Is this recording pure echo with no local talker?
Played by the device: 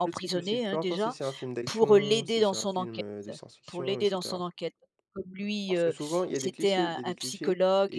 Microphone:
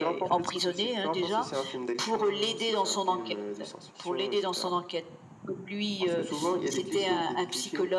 Yes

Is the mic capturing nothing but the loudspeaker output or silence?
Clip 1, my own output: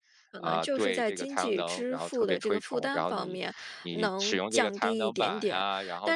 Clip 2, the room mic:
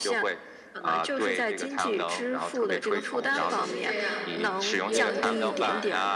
No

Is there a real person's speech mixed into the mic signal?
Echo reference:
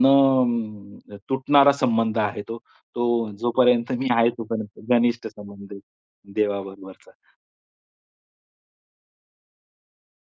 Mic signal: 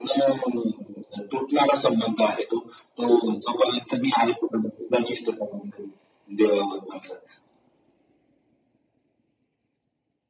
No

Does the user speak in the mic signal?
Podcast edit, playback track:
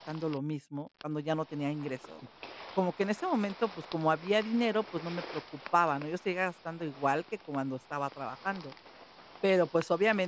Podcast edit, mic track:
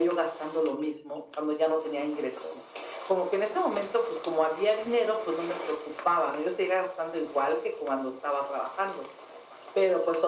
No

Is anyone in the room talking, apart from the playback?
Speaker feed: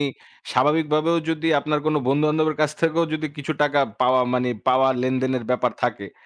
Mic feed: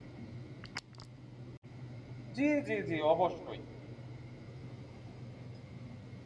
Yes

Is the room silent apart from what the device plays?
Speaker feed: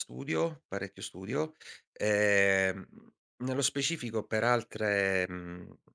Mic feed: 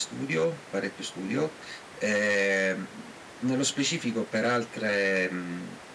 Yes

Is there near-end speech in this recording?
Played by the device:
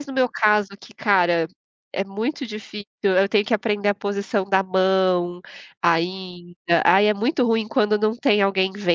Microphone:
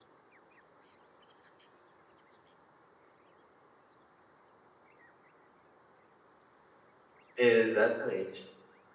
Yes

